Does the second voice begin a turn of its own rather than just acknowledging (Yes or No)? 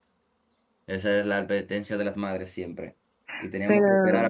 No